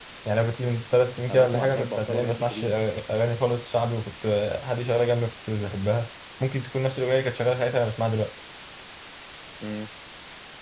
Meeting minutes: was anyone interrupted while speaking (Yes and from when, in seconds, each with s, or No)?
Yes, from 1.3 s